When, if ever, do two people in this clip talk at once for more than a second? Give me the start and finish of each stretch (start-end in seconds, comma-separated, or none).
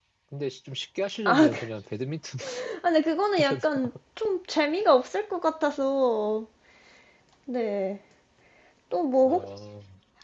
none